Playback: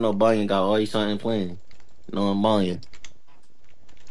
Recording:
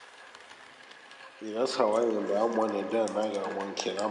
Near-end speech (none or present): present